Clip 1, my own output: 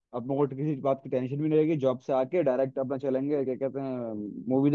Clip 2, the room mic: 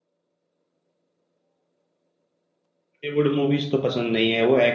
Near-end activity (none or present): present